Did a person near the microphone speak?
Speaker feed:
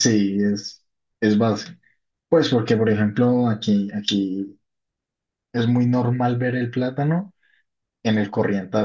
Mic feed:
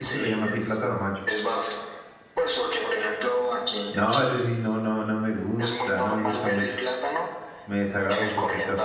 Yes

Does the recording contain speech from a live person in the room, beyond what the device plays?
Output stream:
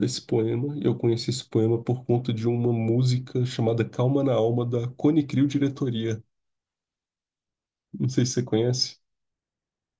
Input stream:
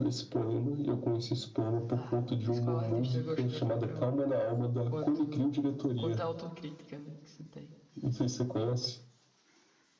Yes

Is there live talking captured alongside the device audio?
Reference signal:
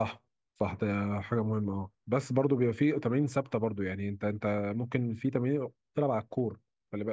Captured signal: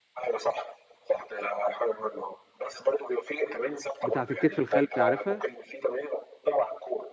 Yes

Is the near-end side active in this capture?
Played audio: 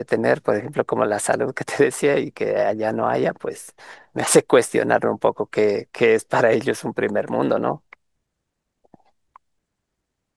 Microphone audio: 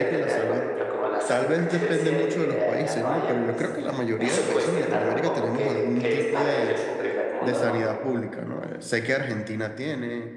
Yes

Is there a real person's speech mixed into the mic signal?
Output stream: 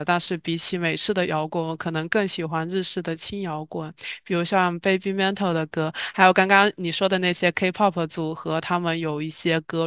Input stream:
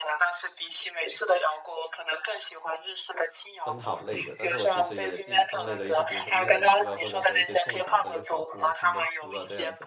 Yes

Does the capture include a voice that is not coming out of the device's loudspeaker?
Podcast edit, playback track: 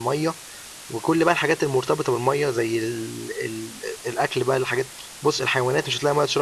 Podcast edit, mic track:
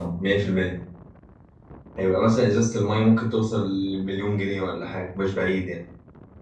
Yes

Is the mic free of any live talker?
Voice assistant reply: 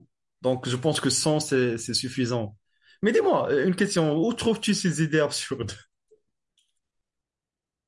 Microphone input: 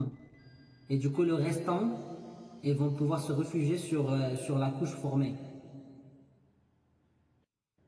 No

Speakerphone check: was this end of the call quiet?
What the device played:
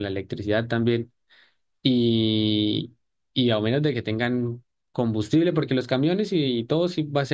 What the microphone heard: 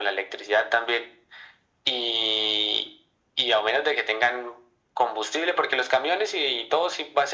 Yes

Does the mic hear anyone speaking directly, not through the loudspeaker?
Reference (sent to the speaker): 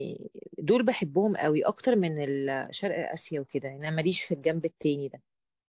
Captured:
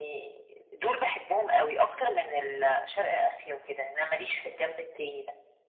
No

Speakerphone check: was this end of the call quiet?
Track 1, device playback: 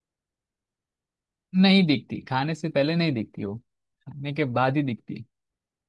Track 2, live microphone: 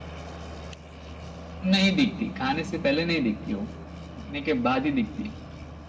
Yes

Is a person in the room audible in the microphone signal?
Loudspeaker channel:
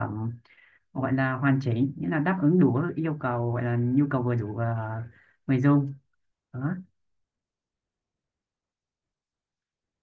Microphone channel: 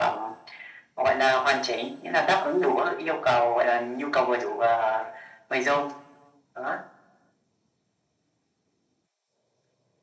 No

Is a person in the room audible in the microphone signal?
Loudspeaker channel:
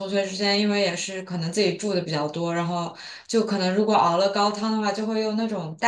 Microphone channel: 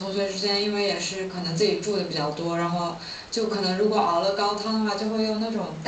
No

